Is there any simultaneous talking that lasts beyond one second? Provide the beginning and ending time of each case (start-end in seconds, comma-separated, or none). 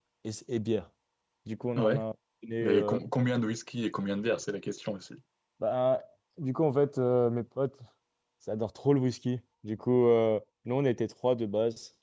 none